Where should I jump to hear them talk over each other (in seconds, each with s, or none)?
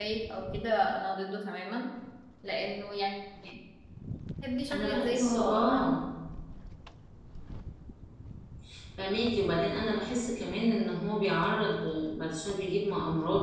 4.7 s